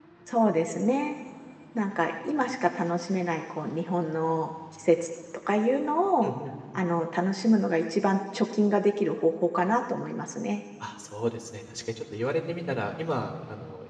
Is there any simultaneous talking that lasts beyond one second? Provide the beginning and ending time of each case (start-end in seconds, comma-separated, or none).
none